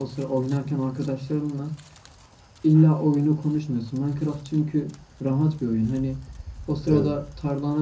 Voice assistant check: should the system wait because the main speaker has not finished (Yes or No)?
Yes